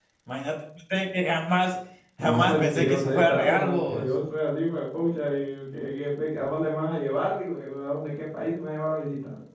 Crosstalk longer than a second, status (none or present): present